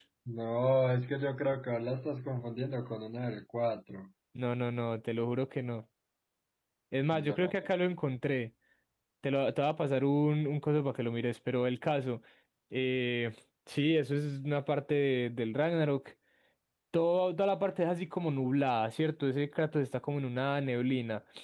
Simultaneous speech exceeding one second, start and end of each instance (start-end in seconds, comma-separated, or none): none